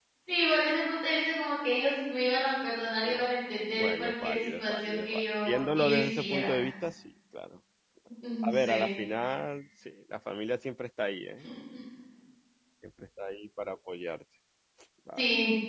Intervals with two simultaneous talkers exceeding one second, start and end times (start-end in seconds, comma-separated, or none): 3.8-6.5